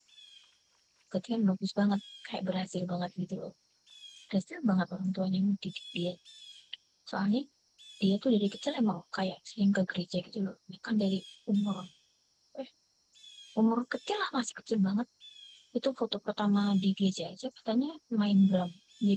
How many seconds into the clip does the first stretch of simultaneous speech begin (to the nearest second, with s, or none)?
none